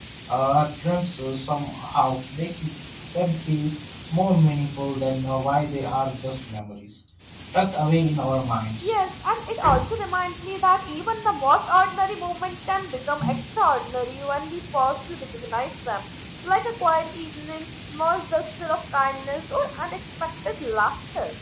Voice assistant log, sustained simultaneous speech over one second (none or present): none